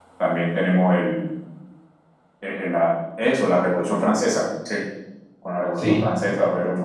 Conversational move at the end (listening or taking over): listening